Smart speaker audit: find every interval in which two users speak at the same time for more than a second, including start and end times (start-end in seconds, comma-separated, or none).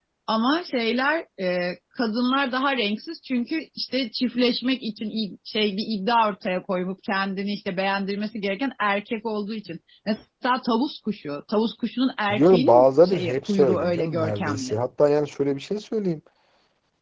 12.3-14.8